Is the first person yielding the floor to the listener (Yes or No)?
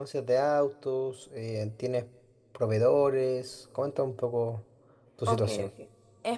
Yes